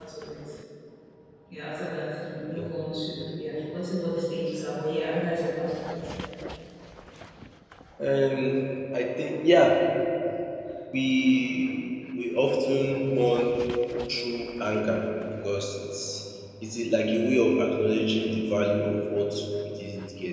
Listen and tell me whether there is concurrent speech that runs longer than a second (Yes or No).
No